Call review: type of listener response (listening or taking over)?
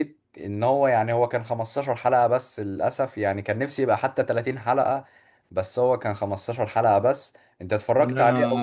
taking over